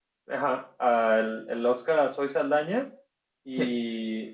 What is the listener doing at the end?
listening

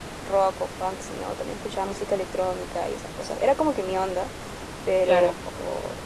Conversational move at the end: listening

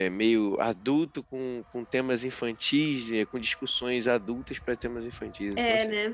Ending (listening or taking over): taking over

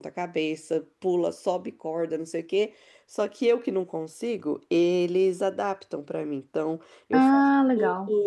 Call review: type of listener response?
listening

